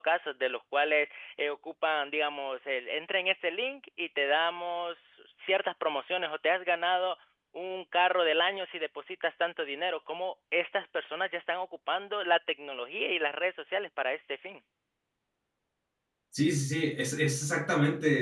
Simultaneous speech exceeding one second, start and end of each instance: none

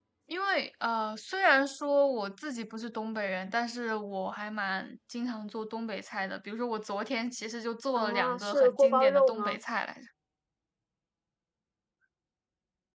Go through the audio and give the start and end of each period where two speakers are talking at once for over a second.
8.0-9.6

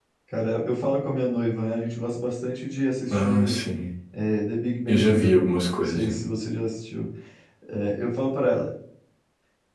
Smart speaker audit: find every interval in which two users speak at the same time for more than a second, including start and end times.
none

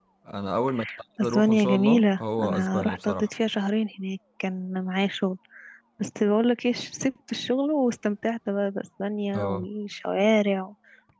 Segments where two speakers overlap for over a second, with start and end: 1.2-3.3

